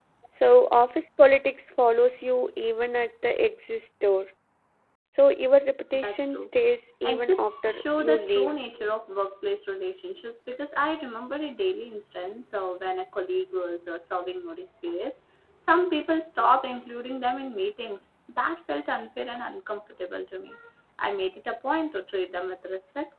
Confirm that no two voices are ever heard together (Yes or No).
No